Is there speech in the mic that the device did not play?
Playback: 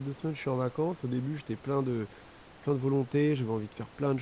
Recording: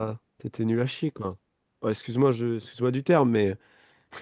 Yes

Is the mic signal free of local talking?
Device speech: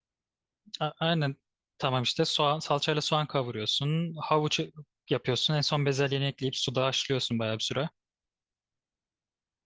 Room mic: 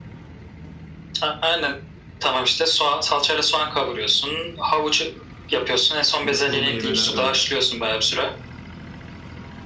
No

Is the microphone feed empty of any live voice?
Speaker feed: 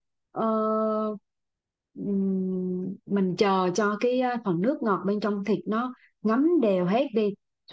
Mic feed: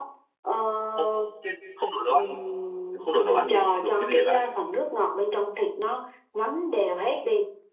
No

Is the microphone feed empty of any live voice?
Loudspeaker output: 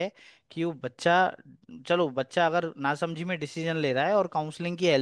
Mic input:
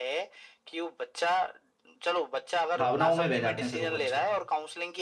No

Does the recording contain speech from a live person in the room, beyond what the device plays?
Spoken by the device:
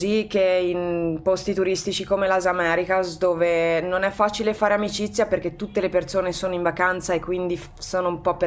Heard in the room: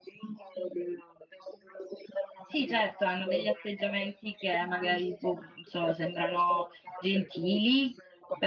Yes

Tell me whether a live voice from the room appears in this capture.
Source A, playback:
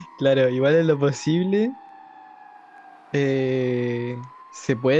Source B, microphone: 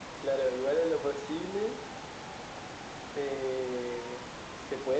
No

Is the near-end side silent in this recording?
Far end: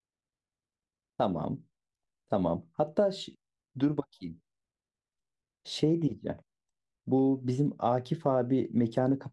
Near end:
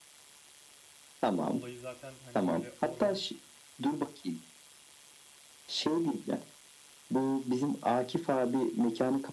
No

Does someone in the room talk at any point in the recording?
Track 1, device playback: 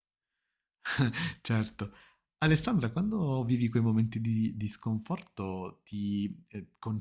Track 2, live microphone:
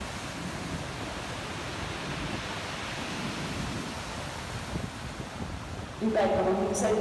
Yes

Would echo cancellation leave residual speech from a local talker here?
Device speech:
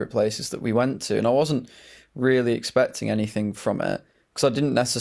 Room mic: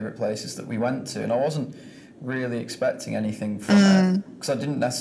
Yes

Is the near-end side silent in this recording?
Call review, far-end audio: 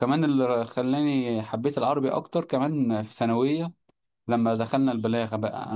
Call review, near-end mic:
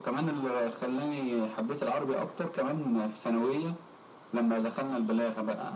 Yes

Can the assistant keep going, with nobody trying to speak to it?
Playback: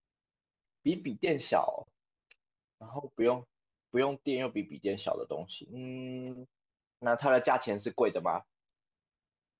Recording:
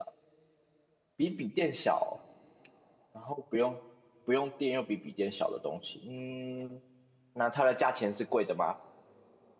Yes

